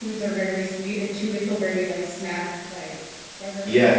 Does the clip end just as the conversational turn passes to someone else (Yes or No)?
No